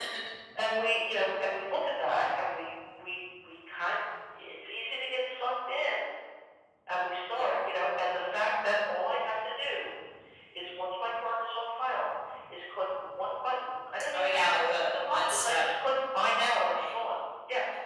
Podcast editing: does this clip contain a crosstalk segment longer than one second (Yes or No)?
Yes